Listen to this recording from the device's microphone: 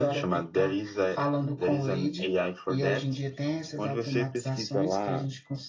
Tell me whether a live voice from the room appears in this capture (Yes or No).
No